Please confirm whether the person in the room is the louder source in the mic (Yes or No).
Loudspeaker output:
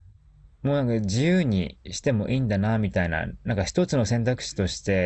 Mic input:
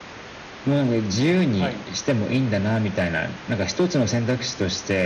No